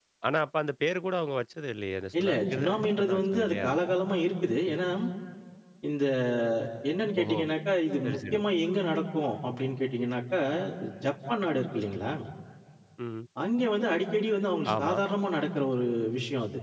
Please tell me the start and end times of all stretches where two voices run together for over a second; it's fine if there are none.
2.2-3.7

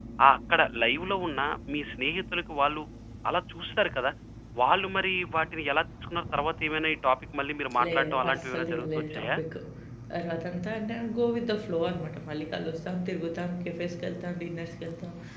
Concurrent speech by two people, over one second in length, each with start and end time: 7.8-9.3

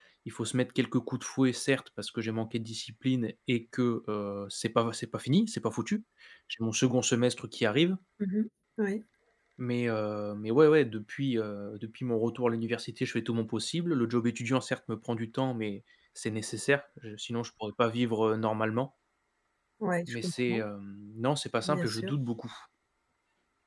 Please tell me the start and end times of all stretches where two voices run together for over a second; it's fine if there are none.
none

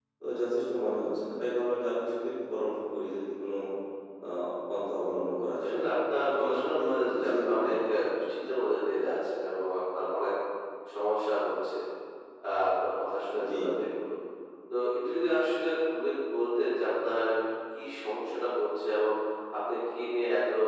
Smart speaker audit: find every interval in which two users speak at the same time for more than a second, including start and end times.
6.3-7.8

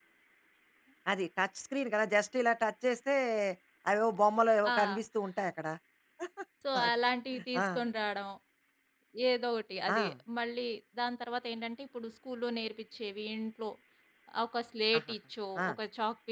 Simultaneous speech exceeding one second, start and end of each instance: none

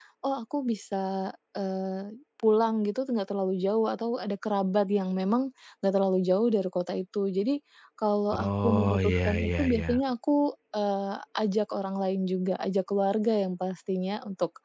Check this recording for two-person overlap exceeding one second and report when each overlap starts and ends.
8.4-9.9

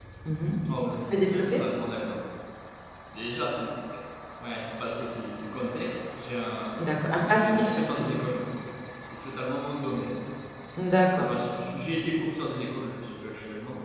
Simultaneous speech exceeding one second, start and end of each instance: 6.8-8.2

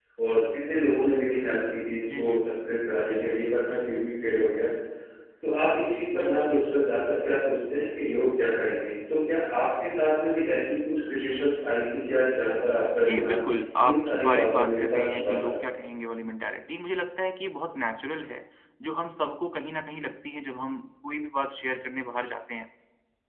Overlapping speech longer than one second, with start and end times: 13.8-15.6

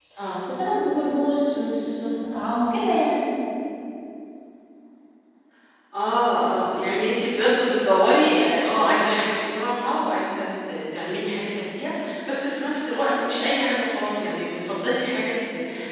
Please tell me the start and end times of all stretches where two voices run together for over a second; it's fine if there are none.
none

